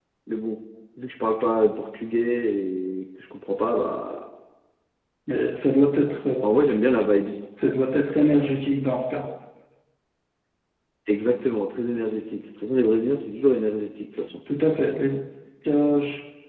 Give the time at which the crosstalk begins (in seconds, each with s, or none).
none